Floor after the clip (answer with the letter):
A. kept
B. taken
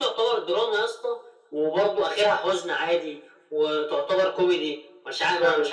B